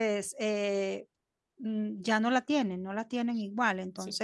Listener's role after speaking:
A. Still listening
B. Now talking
A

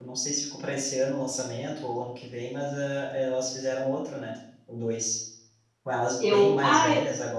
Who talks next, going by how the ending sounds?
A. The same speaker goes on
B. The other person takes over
A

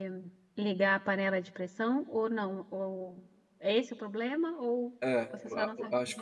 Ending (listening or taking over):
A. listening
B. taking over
B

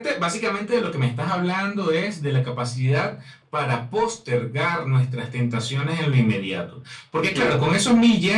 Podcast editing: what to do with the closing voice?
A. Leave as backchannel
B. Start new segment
A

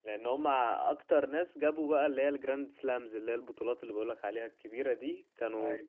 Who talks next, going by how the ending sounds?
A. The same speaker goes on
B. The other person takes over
A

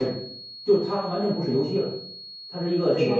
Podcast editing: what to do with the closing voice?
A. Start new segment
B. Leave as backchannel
B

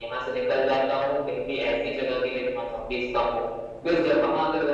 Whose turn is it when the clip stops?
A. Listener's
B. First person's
B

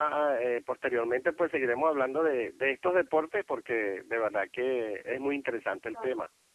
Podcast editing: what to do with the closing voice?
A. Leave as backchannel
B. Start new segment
B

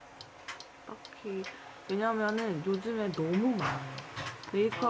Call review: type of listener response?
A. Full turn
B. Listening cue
B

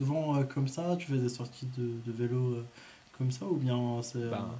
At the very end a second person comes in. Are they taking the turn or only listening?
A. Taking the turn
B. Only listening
B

